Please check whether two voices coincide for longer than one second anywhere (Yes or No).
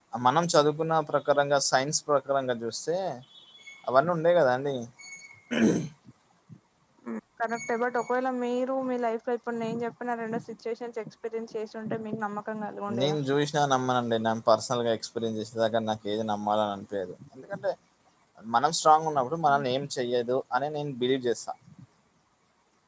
No